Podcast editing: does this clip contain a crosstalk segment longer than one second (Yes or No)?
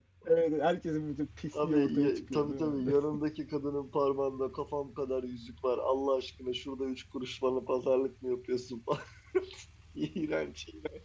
Yes